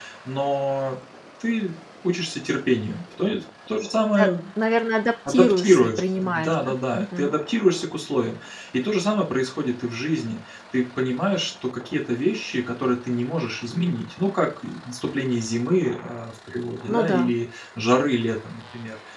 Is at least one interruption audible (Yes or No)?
Yes